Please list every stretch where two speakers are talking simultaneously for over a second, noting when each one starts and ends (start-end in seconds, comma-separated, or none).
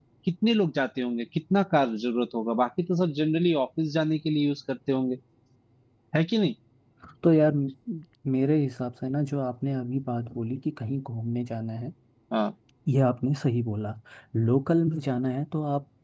none